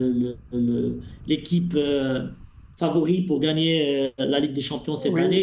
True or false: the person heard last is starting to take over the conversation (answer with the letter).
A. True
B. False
A